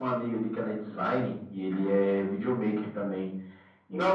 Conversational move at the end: taking over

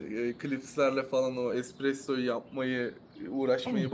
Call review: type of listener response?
listening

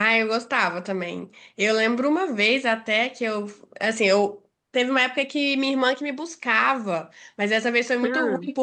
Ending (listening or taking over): listening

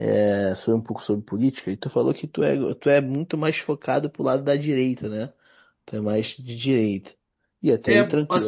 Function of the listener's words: taking over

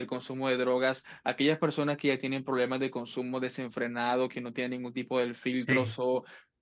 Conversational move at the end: listening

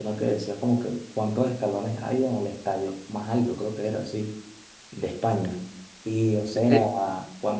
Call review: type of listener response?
listening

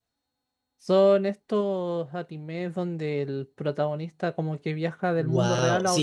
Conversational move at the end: taking over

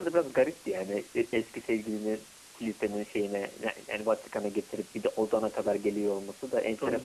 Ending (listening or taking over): taking over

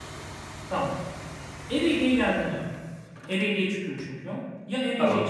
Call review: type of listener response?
listening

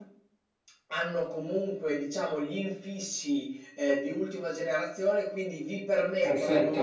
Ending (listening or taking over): listening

